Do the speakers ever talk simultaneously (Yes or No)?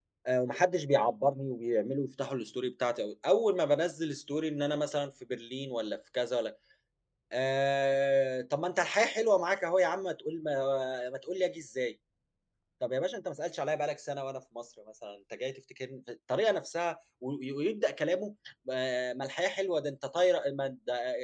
No